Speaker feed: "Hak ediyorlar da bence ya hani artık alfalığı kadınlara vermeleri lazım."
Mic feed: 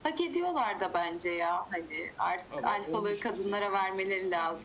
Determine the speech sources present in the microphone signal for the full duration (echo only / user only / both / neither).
both